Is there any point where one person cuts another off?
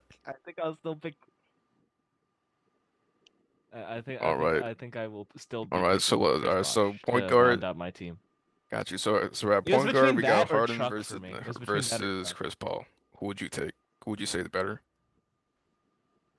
Yes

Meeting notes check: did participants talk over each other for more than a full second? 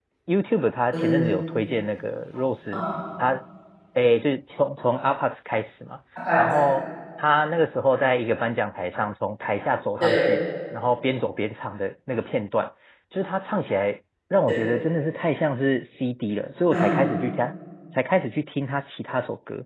No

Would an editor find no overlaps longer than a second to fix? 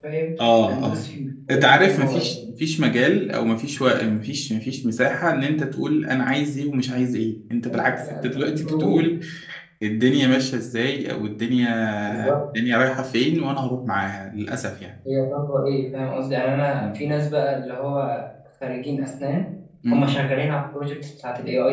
No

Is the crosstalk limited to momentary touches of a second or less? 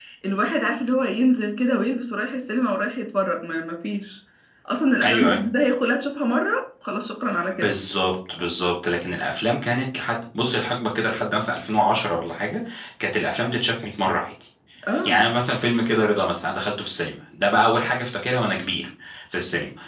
Yes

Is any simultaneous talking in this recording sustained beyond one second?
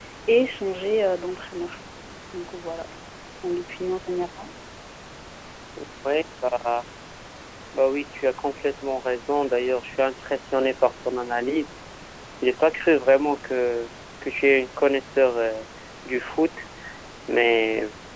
No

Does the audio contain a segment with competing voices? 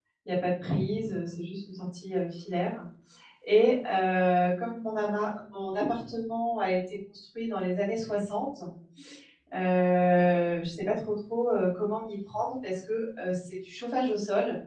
No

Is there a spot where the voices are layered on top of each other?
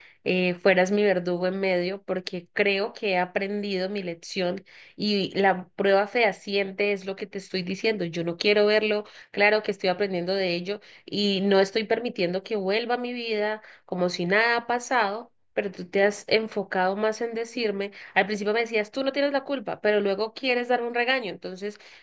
No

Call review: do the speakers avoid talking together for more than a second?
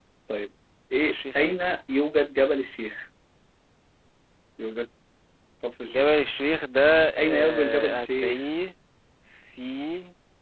No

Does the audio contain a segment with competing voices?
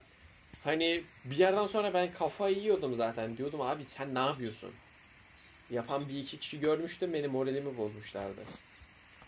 No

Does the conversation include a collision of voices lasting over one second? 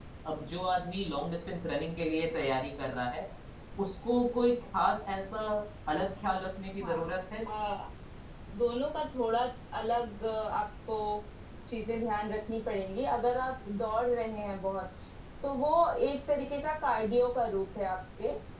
No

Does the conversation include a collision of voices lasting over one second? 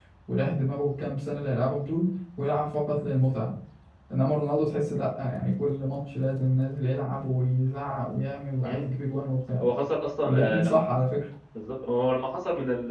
No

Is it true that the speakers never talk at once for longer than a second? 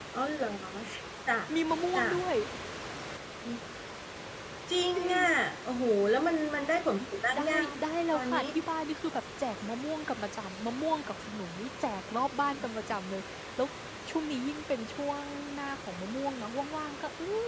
Yes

